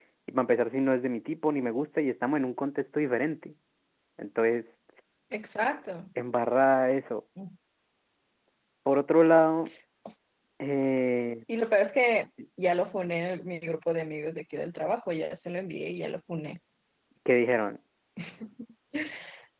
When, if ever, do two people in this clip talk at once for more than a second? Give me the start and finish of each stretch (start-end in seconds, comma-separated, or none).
none